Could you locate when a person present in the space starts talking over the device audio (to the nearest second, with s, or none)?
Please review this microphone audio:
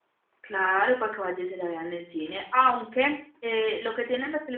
0 s